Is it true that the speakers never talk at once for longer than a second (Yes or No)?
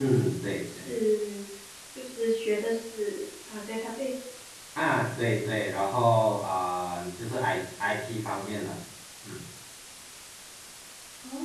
Yes